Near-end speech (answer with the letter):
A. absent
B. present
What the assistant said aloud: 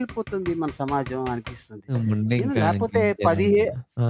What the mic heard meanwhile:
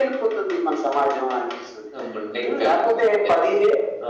A